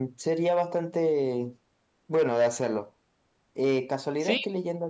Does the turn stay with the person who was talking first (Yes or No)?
Yes